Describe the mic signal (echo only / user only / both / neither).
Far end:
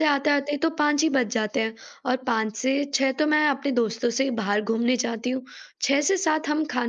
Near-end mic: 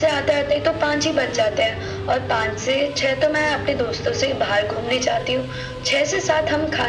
echo only